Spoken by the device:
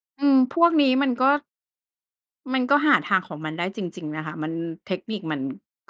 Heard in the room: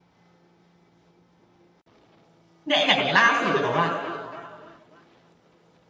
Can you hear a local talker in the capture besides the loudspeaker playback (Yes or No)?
Yes